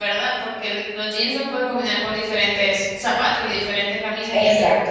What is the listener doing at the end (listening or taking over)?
taking over